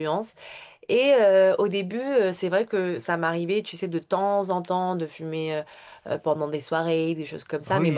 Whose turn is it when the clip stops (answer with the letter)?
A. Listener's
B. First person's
A